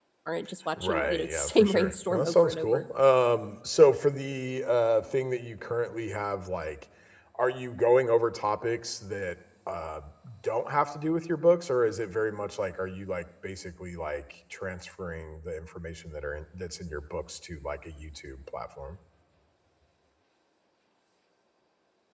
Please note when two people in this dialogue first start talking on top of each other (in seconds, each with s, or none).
0.8 s